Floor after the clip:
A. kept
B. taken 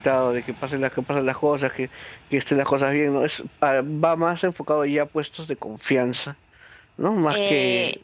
B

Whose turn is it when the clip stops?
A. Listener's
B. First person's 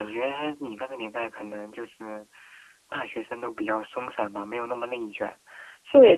A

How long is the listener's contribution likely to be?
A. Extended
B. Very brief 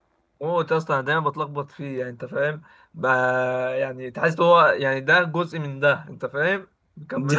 A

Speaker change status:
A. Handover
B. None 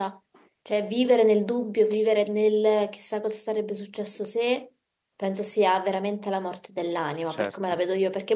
B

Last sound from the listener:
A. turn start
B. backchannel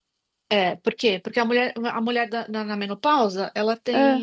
B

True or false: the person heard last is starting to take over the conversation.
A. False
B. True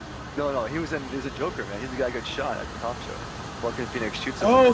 B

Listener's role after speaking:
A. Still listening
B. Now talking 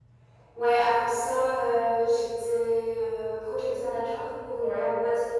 A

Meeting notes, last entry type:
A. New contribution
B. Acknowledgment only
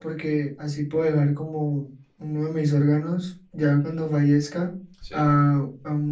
B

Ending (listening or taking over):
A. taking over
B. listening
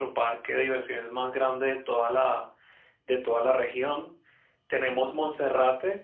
B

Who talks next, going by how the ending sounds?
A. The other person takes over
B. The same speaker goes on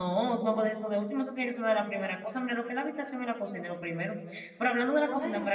B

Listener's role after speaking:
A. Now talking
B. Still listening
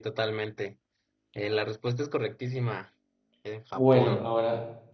A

